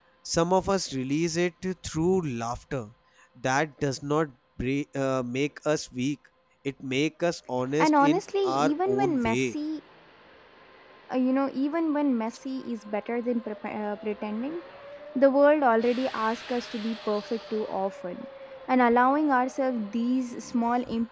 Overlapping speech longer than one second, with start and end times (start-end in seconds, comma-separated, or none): 7.8-9.5